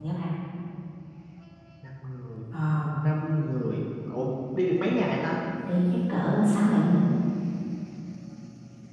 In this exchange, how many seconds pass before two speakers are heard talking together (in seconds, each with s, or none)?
none